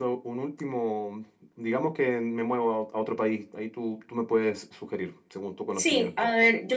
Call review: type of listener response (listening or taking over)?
taking over